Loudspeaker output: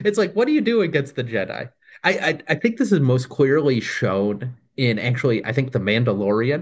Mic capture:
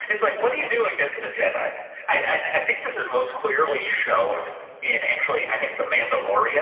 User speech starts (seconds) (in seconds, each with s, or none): none